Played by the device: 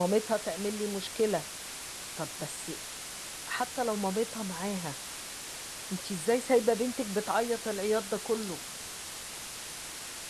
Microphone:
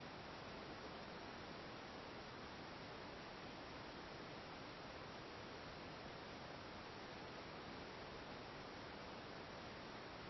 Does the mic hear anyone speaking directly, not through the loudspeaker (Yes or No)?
No